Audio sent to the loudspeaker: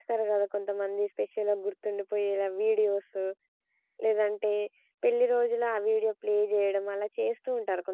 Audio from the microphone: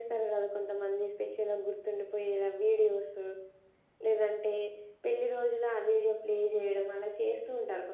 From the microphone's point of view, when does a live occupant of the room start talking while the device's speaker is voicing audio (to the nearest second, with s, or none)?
none